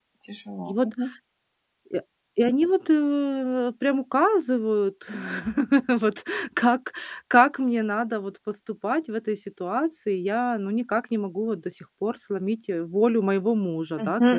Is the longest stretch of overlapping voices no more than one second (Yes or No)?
Yes